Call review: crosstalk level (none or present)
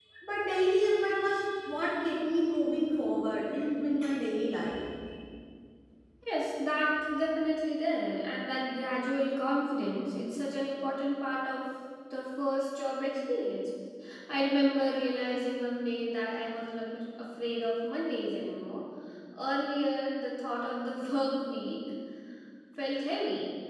none